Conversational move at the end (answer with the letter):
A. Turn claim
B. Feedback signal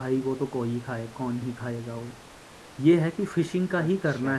B